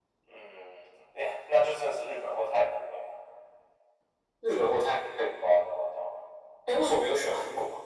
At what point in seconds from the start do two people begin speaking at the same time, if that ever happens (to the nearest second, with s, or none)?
none